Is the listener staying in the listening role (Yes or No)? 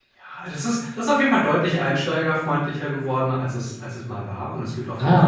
Yes